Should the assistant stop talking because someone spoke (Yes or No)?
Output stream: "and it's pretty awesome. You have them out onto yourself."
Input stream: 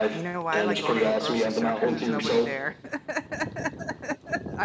Yes